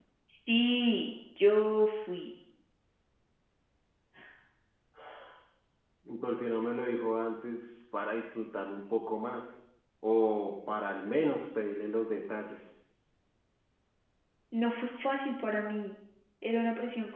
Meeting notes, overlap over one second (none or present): none